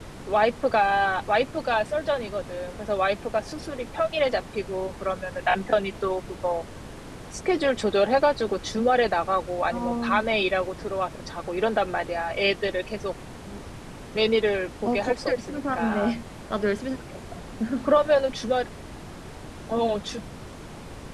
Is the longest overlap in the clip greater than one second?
Yes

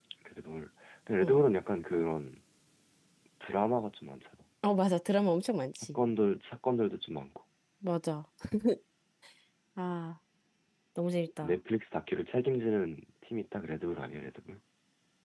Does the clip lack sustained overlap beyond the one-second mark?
Yes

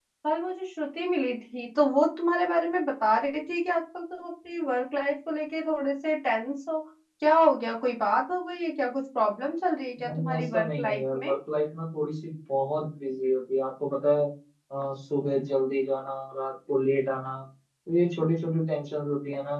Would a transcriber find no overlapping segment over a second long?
No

